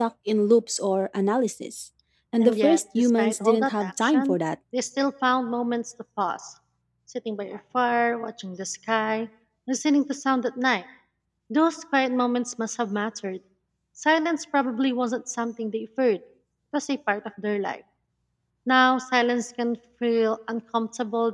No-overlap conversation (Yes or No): No